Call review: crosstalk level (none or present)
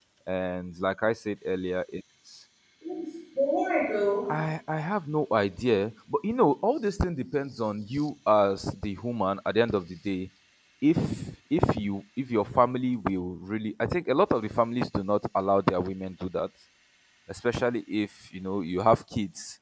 none